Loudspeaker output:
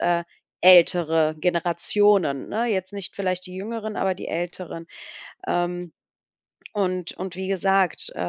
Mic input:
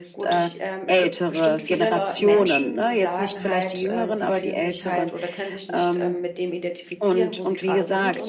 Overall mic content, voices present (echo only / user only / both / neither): both